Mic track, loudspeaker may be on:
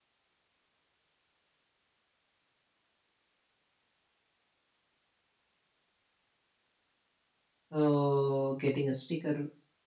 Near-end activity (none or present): present